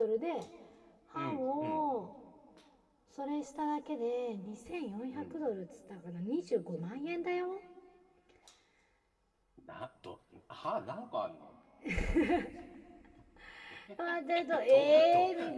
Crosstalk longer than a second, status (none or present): present